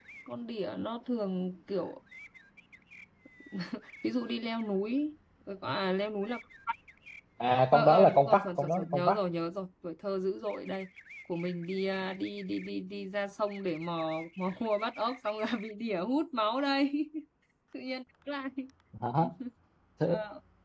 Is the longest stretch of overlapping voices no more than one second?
No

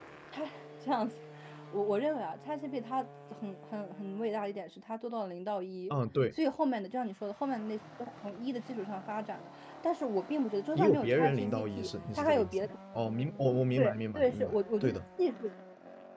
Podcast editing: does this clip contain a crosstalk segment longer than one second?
Yes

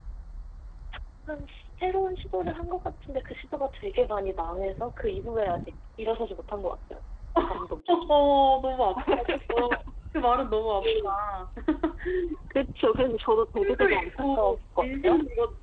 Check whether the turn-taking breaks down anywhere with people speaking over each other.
Yes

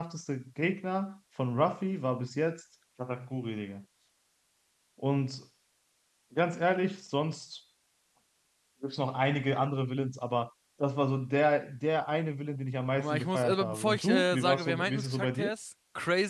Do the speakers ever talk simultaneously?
Yes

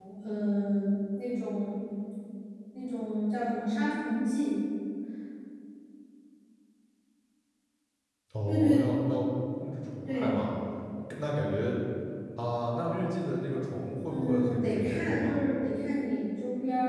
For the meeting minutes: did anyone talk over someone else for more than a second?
Yes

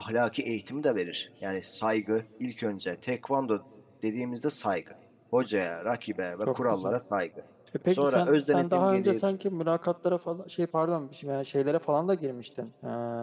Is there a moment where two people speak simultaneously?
Yes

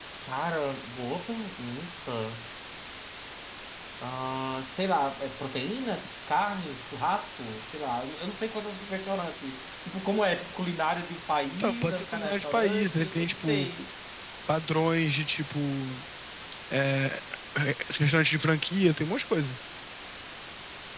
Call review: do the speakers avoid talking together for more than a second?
No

